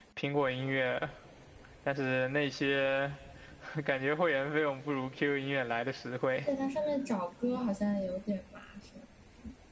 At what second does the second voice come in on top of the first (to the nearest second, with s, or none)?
none